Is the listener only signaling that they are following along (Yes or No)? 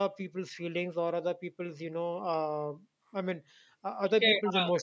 No